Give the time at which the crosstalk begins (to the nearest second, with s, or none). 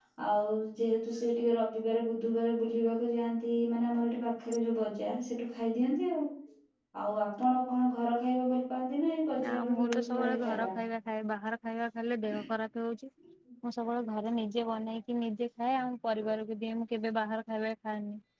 9 s